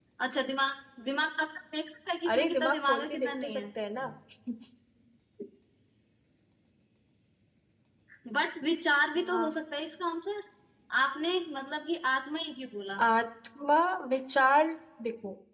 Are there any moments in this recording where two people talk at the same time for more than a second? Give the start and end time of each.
2.2-3.6

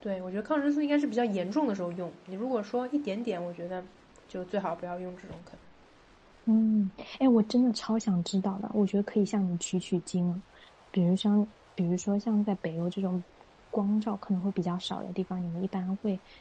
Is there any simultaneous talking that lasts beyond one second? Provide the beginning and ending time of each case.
none

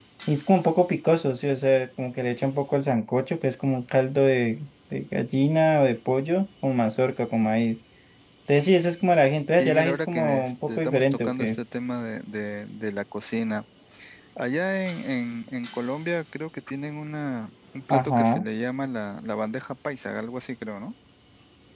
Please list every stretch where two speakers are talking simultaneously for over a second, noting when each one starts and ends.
9.6-11.6

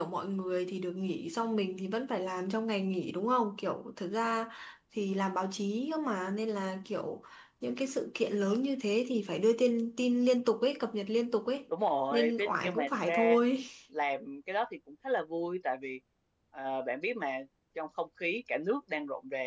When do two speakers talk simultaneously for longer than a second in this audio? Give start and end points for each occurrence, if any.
12.1-13.4

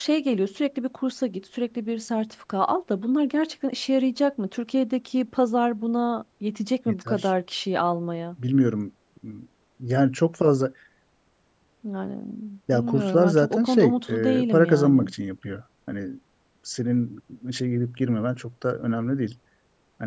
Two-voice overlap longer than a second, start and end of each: 12.7-15.1

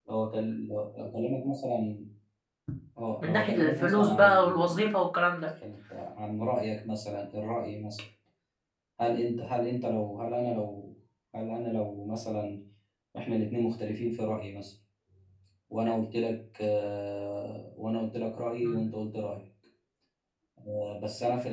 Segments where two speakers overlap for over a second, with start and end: 3.2-4.9

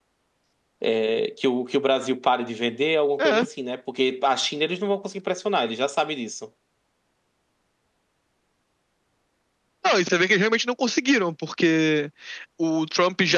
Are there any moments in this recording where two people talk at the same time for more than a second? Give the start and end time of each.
none

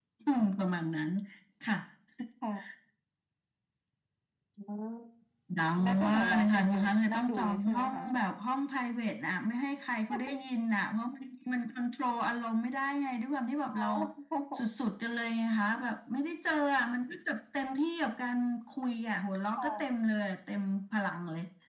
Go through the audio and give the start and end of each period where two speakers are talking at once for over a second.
5.8-8.0

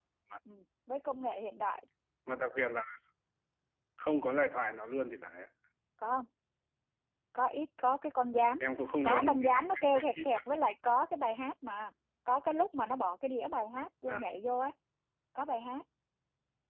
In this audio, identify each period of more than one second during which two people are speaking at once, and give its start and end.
9.0-10.6

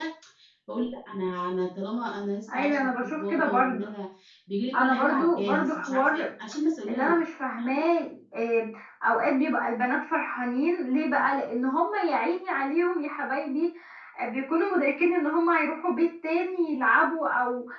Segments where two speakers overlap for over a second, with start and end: 2.5-3.8, 4.7-6.0

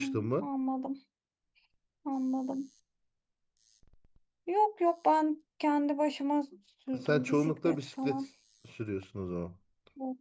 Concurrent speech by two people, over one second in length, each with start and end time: 7.0-8.2

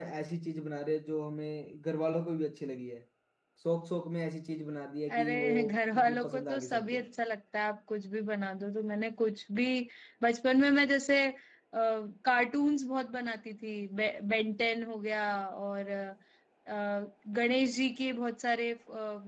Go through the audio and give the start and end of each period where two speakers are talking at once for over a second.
5.2-7.0

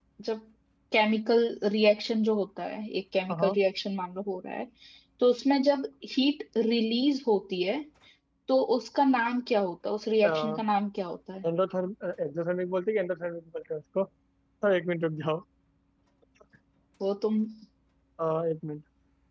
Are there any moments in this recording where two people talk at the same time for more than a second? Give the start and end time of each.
none

